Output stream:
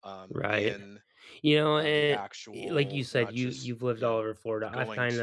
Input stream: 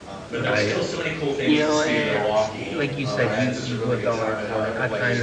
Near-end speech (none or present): present